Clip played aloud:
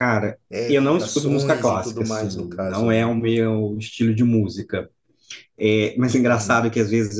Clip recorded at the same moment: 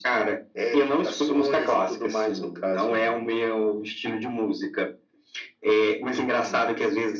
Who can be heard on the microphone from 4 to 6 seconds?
echo only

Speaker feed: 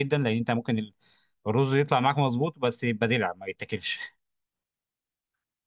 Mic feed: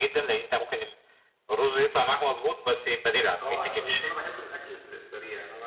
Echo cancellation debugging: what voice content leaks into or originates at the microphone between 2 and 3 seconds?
echo only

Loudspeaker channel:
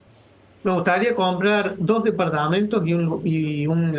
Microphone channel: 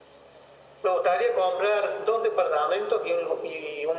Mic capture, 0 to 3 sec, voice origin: echo only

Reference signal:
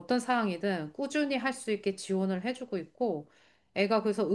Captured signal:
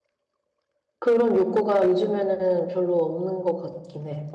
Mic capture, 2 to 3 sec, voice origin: user only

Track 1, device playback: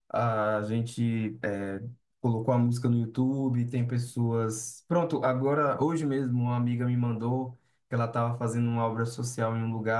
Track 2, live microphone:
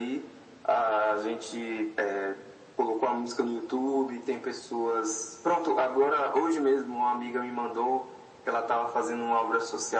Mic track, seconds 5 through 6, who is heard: echo only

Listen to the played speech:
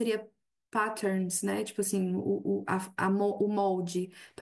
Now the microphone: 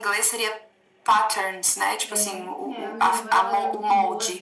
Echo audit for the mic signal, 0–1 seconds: echo only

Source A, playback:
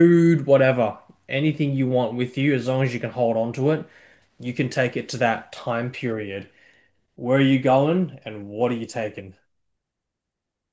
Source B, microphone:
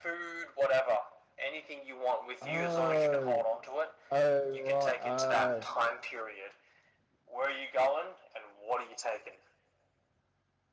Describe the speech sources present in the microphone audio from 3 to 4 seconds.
both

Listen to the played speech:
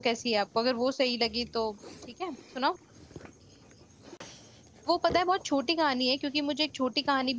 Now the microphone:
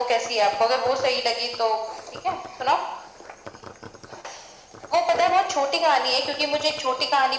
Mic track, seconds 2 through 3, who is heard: echo only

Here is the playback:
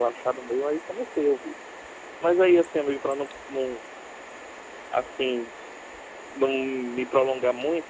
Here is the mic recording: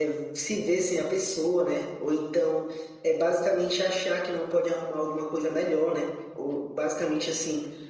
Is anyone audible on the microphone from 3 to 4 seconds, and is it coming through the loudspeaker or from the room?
user only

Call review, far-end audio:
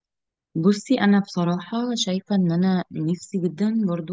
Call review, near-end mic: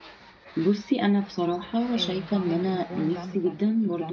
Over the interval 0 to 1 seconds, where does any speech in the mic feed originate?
echo only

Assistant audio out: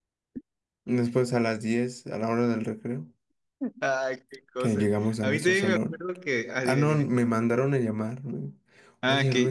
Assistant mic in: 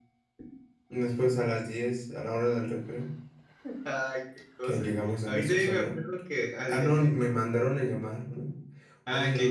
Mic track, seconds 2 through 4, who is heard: echo only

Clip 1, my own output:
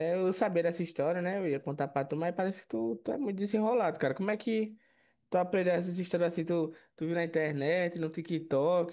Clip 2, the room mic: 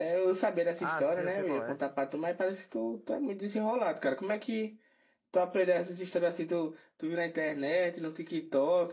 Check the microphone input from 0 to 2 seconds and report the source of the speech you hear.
both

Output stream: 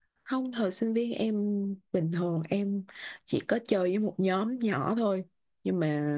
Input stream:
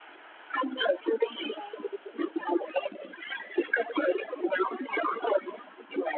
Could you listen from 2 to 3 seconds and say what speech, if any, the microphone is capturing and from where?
echo only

